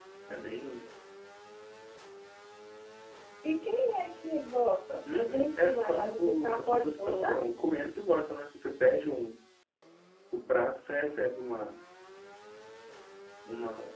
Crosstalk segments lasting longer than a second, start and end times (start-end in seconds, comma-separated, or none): 5.1-7.4